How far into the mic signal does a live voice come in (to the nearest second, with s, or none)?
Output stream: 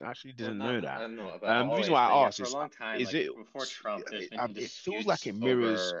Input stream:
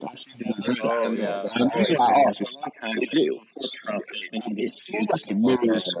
1 s